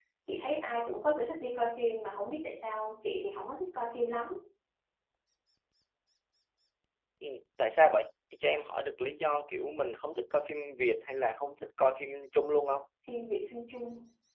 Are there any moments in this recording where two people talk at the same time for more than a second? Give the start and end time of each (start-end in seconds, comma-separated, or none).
none